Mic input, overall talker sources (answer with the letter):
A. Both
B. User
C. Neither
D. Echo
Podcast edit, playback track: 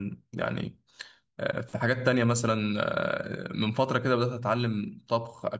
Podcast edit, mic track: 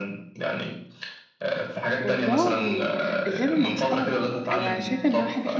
A